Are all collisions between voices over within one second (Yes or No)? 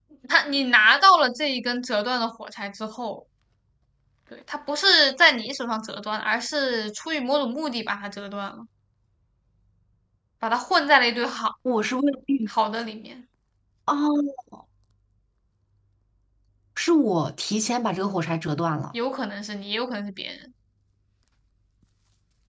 Yes